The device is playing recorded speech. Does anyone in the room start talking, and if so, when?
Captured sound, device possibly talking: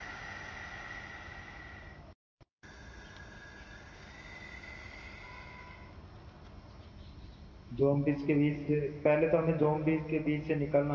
7.7 s

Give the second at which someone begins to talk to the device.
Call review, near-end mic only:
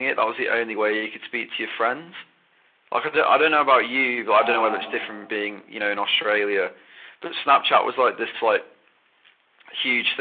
4.3 s

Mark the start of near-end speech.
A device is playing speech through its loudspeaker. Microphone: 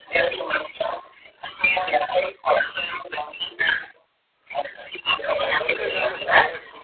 5.4 s

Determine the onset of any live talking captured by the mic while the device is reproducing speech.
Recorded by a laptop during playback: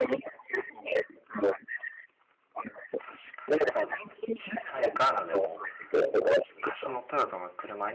3.0 s

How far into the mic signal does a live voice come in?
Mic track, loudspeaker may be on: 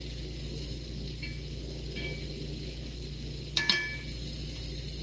none

